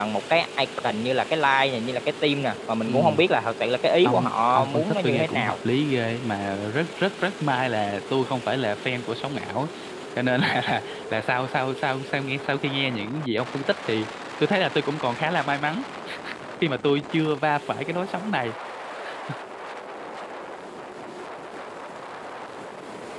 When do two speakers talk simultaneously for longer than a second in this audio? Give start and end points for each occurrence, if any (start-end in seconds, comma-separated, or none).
4.0-5.6